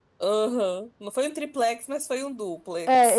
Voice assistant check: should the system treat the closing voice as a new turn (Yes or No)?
Yes